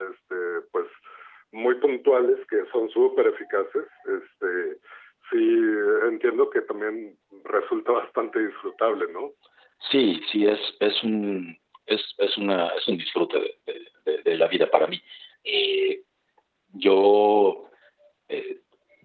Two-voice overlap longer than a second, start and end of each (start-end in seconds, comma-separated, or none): none